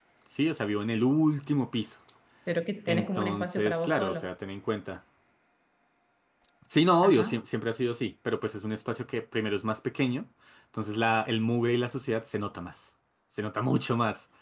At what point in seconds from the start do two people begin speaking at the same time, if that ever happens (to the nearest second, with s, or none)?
3 s